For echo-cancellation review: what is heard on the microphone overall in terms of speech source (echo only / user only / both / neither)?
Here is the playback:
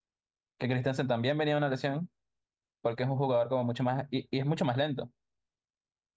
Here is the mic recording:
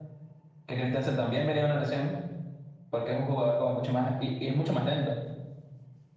echo only